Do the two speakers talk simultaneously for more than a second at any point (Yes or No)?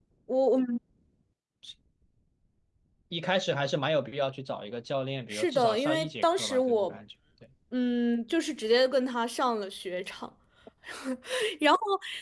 Yes